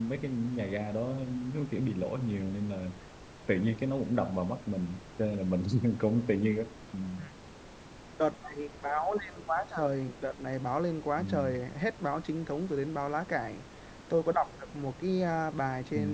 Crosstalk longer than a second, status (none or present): none